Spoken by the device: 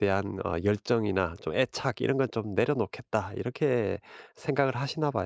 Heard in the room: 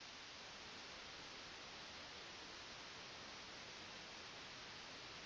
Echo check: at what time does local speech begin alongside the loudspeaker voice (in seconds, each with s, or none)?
none